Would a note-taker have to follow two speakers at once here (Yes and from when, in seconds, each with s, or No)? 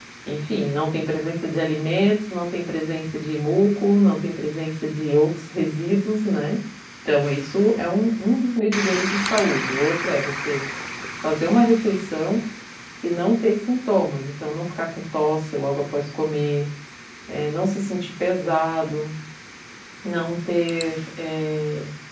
No